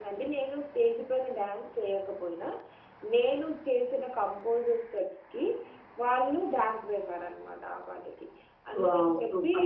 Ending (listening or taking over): taking over